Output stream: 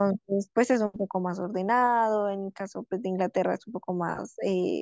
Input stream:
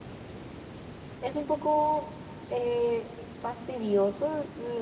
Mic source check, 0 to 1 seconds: neither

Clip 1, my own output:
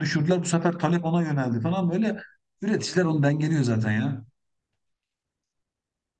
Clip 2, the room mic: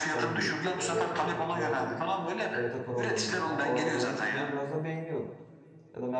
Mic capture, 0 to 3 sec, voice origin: both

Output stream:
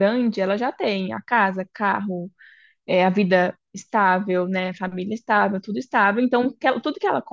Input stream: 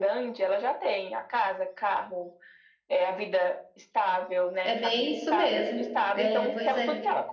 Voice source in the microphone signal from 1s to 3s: echo only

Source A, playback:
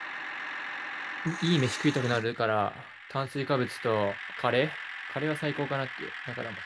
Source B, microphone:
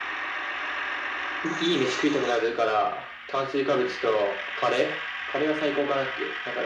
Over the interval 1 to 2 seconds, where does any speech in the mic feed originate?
echo only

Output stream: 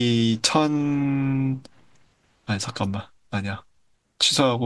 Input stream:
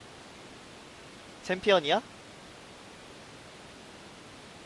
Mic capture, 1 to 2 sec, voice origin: user only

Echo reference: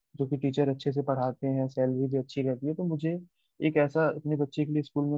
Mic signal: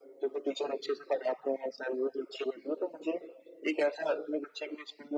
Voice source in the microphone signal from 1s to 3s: echo only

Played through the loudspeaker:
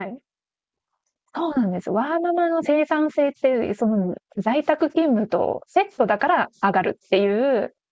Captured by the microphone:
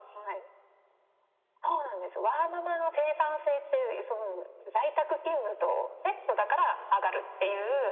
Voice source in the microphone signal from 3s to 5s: echo only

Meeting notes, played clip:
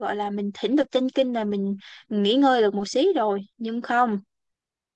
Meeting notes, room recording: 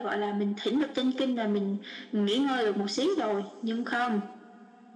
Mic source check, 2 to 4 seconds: echo only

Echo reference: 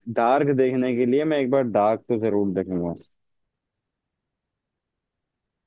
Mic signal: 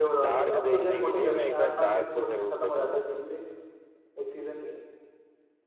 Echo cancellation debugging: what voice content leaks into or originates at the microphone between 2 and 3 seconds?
both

